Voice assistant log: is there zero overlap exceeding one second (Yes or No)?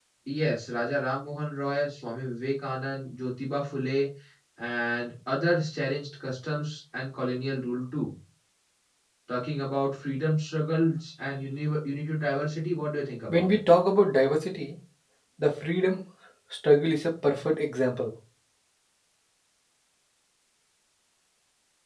Yes